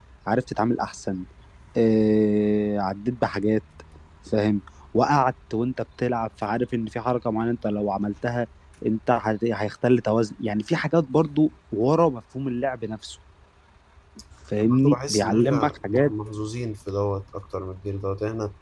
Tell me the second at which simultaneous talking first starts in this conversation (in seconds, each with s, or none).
14.6 s